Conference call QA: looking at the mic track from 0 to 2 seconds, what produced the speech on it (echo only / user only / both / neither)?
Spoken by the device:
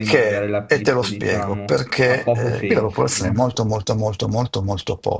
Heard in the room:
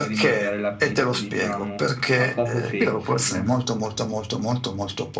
echo only